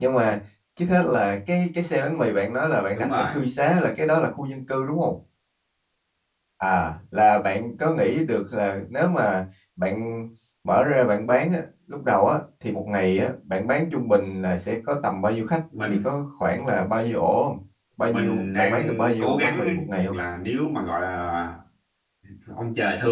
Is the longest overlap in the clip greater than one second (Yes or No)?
Yes